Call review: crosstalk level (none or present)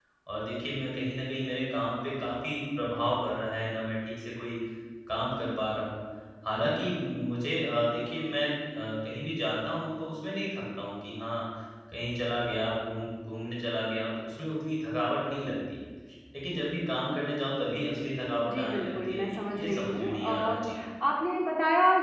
present